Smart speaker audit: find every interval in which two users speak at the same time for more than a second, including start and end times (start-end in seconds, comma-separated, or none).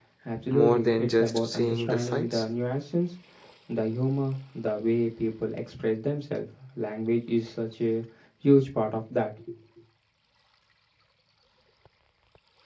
0.5-2.4